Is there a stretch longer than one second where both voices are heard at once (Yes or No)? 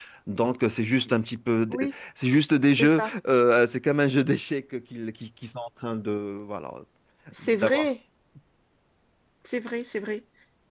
No